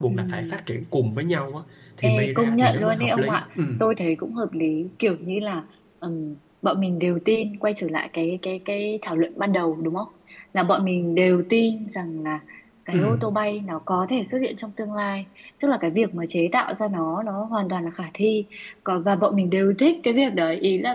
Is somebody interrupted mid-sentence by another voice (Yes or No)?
Yes